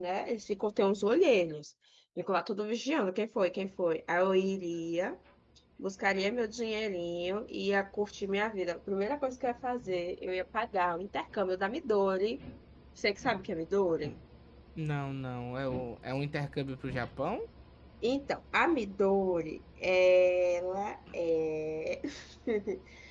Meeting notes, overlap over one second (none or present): none